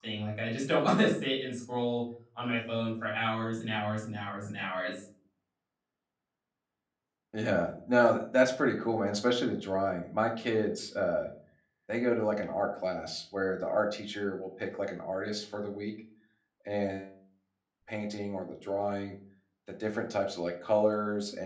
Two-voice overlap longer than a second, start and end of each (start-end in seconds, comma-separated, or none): none